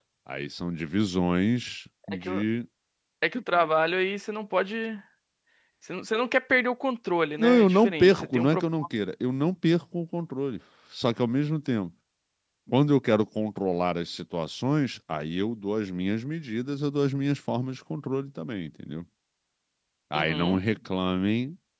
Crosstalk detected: Yes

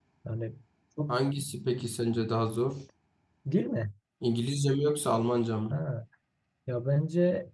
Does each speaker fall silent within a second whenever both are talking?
Yes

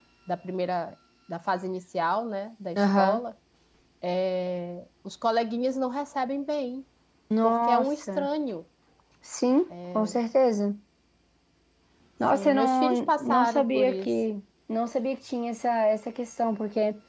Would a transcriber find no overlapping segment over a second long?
No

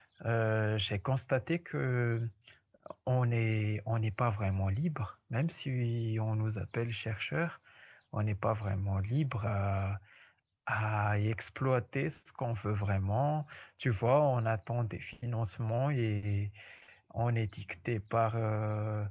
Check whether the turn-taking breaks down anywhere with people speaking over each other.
No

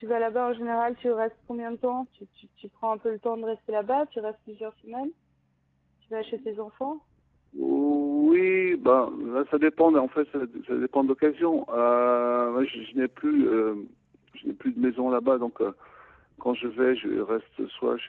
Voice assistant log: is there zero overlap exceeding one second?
Yes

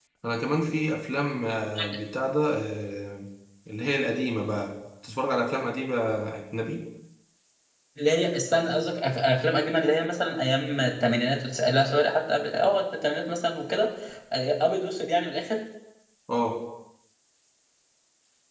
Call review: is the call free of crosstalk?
Yes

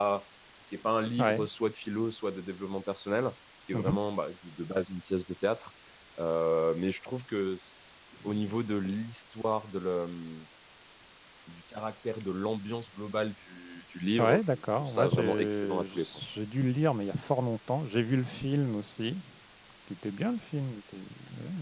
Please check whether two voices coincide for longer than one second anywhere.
Yes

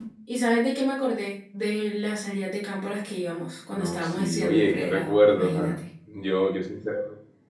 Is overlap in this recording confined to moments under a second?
No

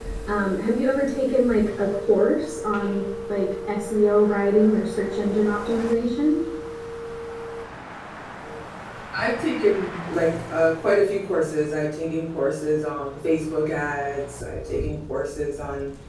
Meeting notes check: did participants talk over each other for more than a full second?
No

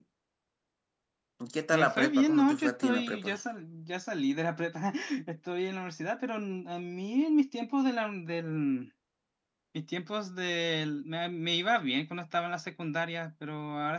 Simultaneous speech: Yes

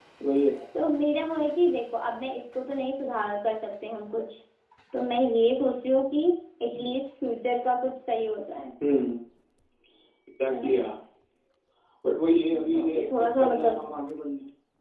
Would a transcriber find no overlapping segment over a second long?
No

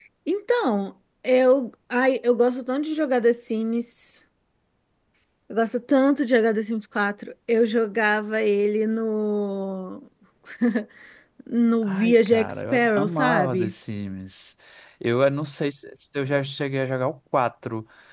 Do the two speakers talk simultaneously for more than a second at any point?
Yes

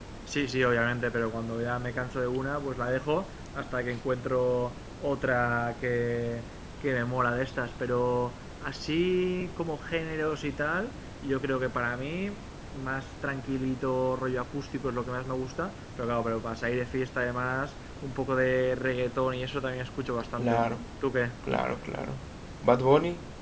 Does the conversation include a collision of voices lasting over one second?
No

